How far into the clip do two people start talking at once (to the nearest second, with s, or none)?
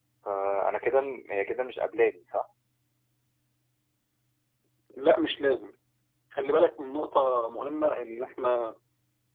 none